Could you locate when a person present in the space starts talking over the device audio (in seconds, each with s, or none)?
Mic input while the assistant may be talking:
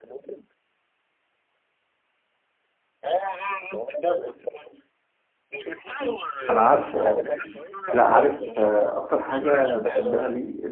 6.5 s